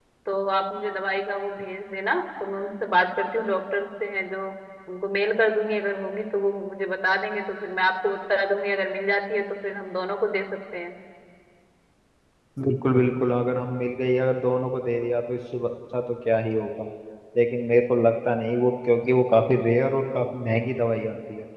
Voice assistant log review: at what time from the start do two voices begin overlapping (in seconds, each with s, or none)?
none